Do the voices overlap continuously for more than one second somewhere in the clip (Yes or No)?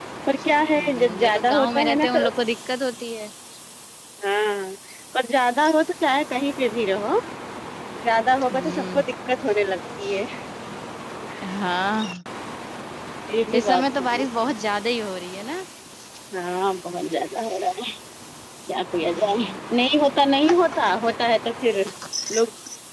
Yes